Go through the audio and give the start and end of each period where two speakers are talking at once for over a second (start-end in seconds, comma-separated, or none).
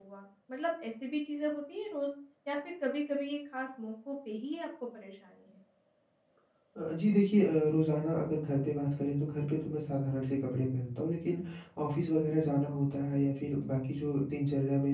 none